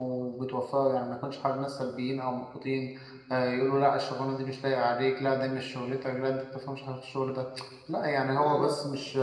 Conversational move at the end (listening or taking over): listening